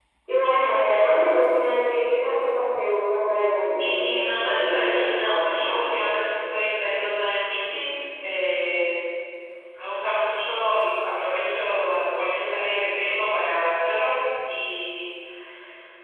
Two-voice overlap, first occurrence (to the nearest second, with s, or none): 4 s